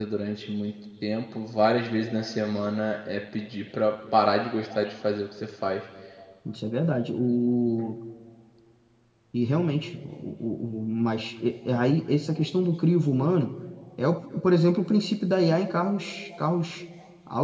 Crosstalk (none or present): none